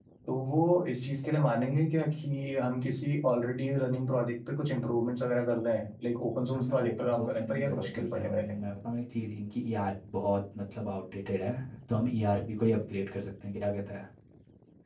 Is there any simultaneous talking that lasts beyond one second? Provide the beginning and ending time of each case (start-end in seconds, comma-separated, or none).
6.5-8.6